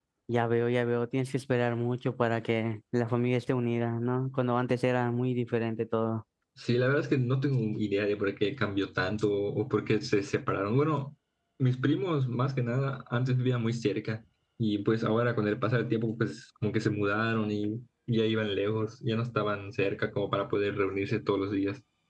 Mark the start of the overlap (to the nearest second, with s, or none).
none